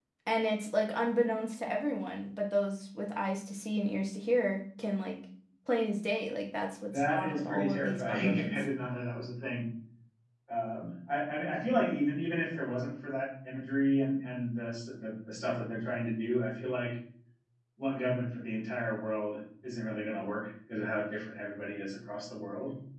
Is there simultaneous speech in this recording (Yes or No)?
Yes